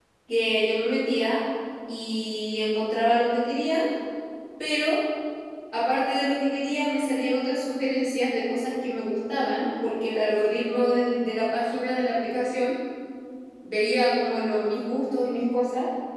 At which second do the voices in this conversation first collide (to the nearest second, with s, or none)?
none